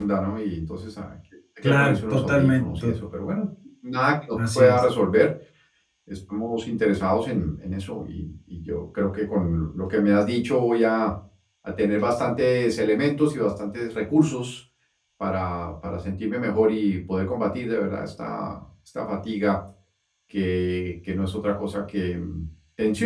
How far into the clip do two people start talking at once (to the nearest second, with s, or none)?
2 s